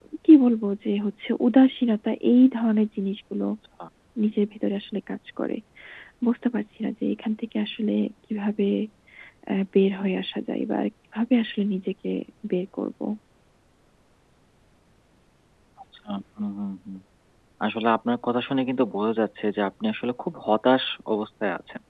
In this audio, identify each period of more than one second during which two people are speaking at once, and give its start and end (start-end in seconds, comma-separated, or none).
none